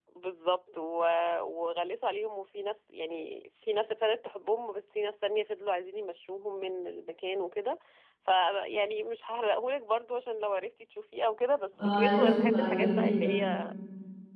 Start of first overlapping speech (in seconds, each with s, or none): 11.8 s